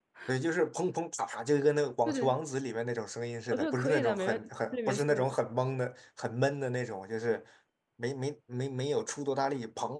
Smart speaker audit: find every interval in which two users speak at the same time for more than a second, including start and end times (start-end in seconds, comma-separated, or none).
3.5-5.2